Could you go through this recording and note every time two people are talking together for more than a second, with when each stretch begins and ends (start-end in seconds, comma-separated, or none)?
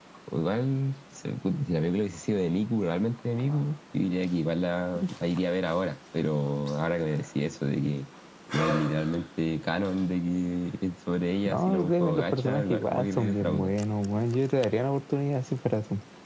11.4-13.7